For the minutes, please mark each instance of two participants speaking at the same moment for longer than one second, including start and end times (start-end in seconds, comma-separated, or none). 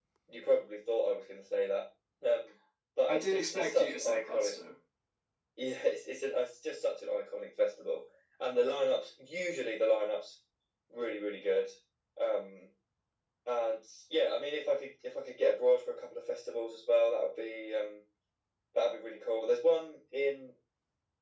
3.1-4.6